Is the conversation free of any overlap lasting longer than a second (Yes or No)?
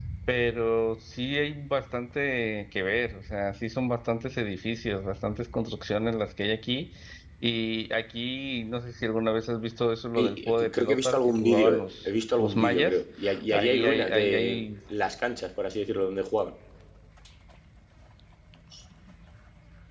No